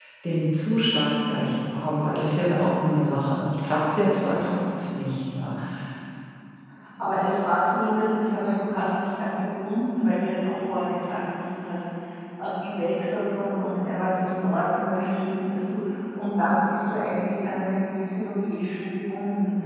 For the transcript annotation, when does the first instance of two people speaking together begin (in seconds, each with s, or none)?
none